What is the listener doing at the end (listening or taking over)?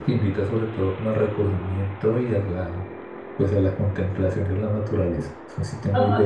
taking over